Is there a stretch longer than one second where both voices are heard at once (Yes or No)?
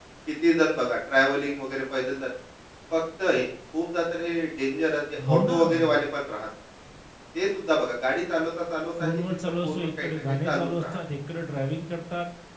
Yes